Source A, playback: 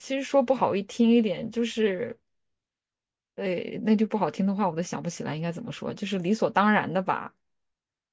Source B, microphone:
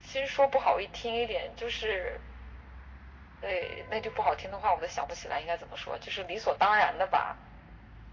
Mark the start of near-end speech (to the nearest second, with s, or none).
none